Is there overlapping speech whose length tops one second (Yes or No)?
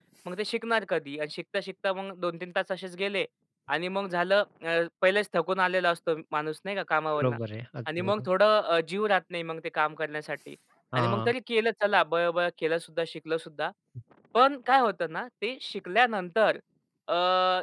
No